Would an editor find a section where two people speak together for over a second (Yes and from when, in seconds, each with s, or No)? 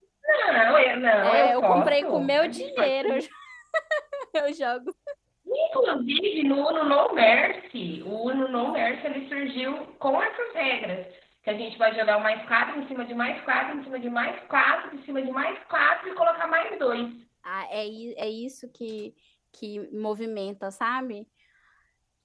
Yes, from 1.2 s